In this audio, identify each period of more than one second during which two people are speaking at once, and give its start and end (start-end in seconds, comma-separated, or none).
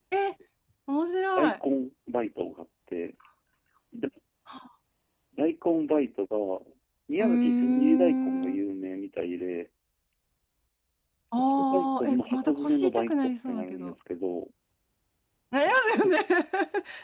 7.2-8.6, 11.7-13.9